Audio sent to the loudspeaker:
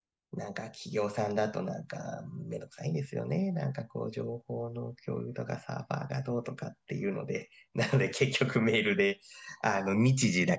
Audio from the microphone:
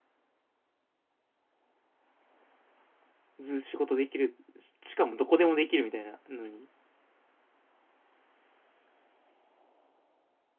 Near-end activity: present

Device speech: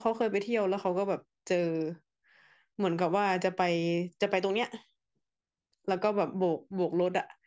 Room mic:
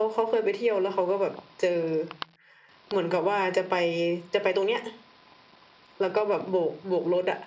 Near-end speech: none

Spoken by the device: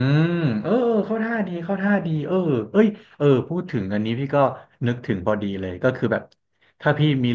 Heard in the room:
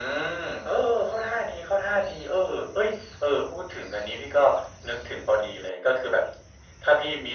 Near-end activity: none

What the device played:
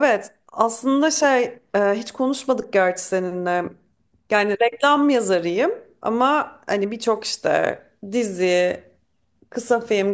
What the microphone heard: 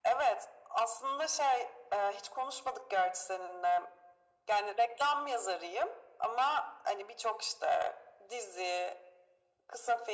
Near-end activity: none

